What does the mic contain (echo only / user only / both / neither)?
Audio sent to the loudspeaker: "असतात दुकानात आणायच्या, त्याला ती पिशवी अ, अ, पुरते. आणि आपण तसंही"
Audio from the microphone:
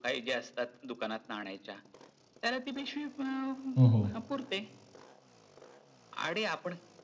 both